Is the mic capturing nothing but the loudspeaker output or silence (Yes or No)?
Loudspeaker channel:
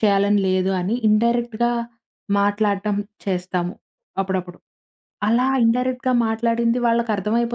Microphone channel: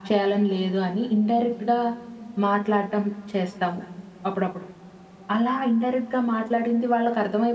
Yes